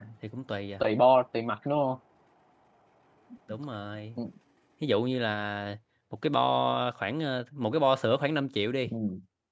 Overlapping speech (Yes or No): No